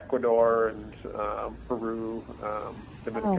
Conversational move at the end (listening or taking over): listening